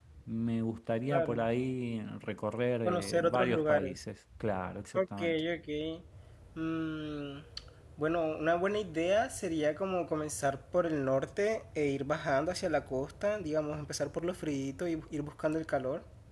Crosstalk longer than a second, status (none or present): present